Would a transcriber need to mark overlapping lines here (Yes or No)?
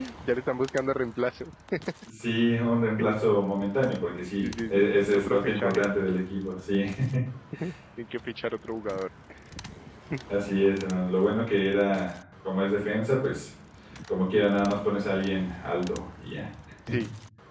Yes